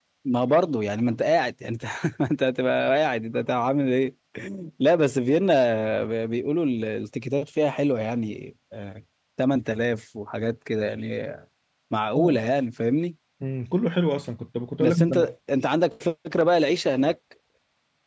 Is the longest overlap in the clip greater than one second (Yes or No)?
No